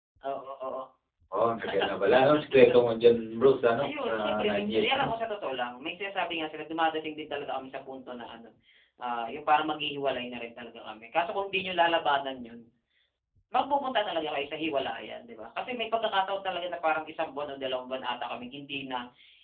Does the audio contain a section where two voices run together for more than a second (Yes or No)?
Yes